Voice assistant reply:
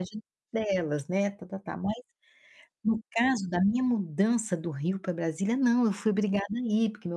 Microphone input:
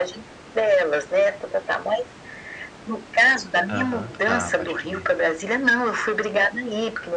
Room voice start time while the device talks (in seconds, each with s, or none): 3.7 s